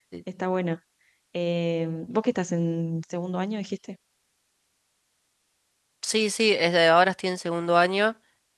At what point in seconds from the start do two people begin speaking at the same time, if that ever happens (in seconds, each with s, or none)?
none